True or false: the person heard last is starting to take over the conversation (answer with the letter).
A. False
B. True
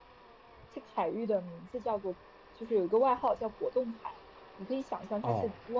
A